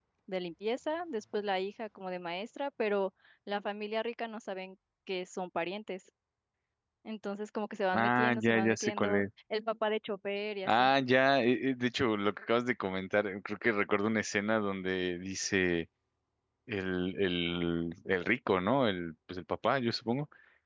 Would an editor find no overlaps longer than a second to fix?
No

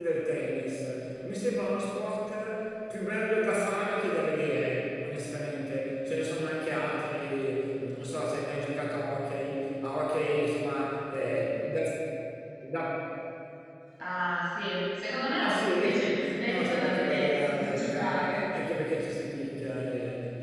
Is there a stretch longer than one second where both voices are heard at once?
Yes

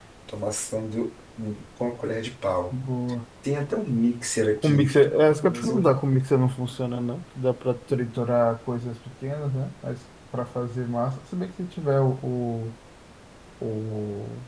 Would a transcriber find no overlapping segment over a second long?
Yes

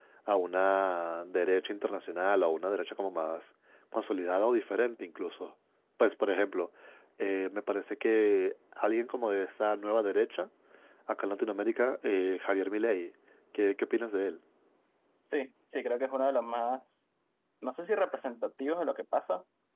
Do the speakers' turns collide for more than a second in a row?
No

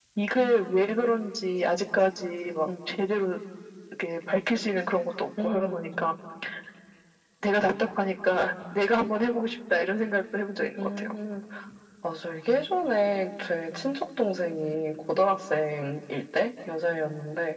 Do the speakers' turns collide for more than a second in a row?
No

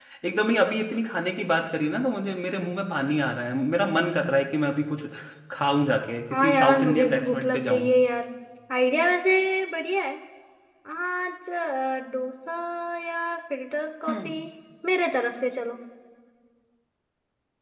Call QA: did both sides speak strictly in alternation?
No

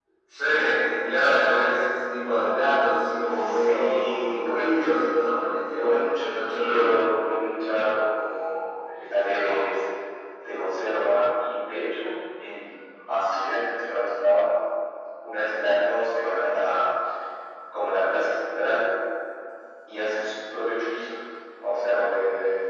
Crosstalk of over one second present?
Yes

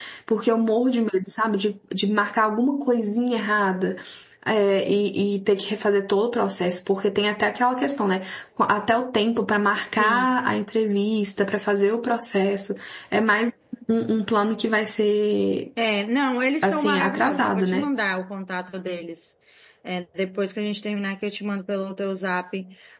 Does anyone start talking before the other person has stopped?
Yes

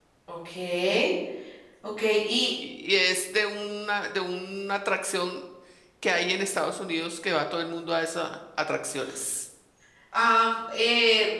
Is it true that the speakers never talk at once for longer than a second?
Yes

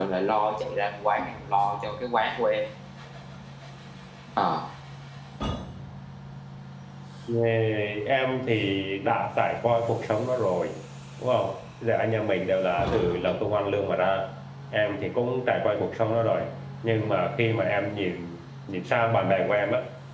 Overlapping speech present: No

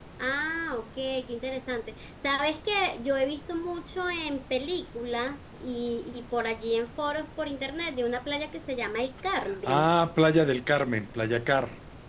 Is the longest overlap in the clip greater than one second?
No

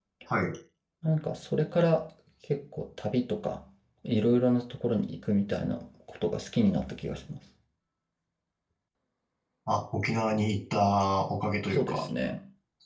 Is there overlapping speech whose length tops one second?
No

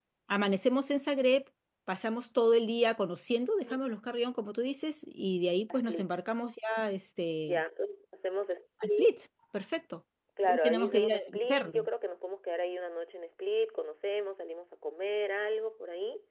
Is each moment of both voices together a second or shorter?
No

